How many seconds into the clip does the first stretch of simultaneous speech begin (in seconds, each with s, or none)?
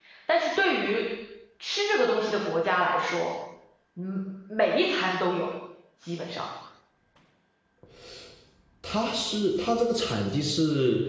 none